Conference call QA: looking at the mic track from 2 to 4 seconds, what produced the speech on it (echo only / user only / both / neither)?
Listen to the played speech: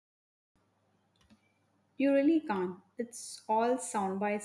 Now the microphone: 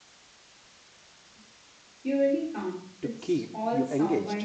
both